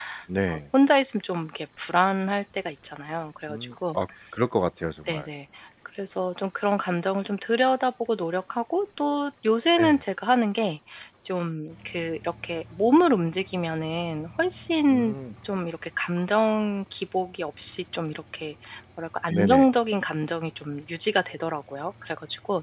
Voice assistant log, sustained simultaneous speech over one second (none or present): none